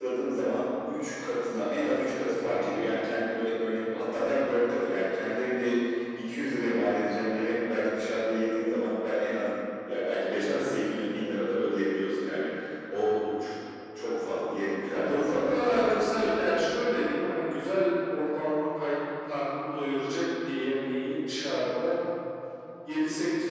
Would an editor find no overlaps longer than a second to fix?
No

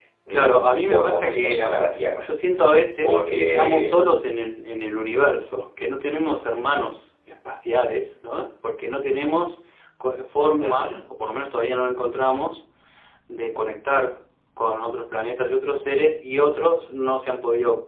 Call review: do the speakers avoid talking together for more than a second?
No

